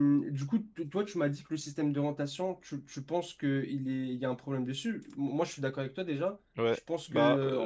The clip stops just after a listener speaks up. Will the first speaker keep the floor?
No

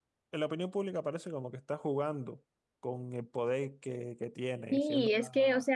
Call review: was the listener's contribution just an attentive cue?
No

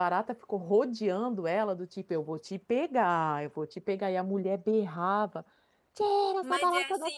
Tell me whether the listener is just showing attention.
No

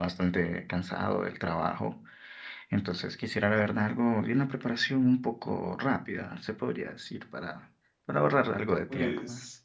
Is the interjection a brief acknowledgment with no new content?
No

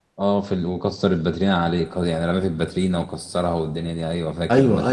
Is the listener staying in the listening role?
No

